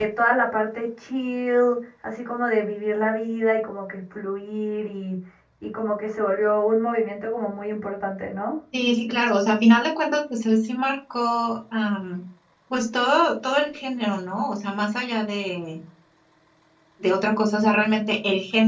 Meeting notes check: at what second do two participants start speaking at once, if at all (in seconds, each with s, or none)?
none